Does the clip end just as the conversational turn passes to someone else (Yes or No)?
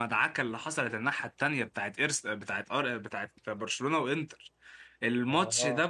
No